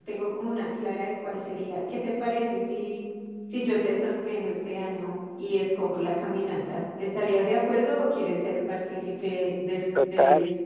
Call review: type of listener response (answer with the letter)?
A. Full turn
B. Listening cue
A